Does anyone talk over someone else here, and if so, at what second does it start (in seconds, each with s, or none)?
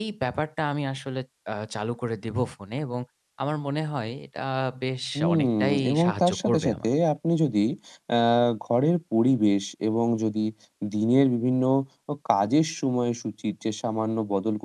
5.2 s